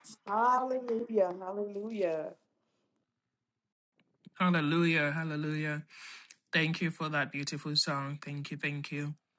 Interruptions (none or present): none